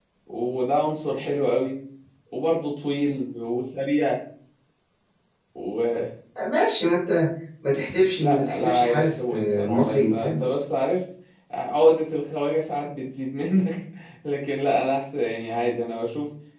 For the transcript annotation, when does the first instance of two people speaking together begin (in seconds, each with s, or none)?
8.2 s